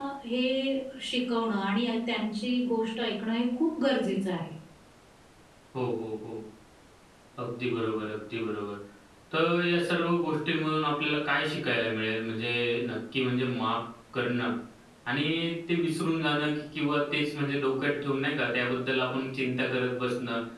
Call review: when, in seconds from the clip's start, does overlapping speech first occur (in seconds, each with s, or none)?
none